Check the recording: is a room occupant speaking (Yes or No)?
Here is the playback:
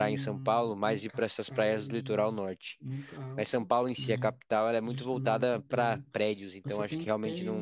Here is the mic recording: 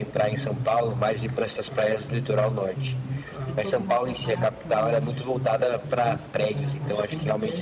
Yes